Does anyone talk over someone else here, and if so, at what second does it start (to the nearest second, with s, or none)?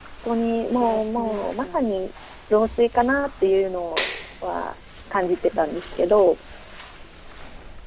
1 s